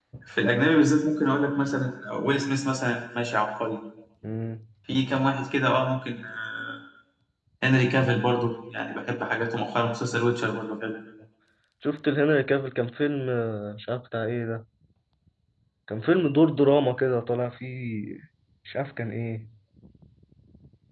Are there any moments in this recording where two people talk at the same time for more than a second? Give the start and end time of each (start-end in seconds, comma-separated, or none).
none